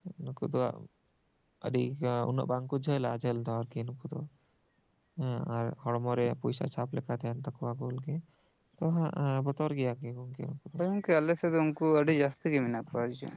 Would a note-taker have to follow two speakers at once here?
No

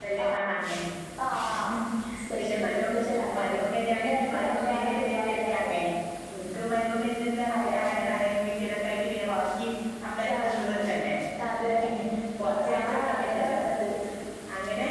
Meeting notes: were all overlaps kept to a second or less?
No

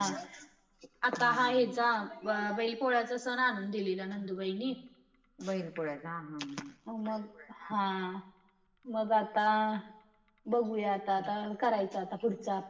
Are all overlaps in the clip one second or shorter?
Yes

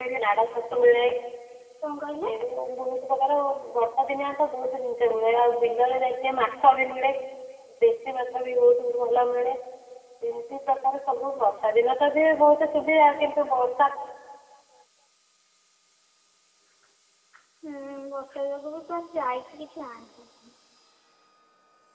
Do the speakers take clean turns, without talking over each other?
Yes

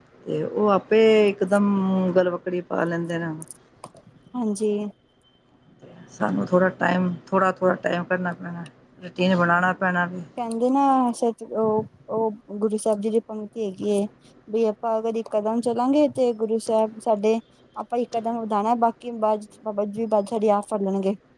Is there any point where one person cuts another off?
No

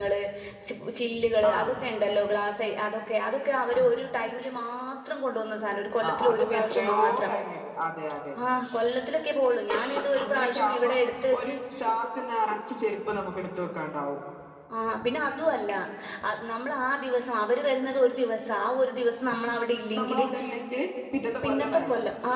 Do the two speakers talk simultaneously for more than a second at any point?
Yes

